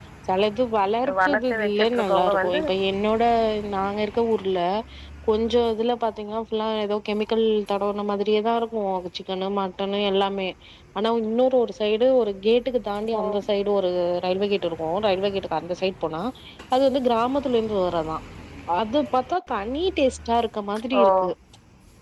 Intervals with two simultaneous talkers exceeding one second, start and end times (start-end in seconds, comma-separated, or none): 1.3-2.6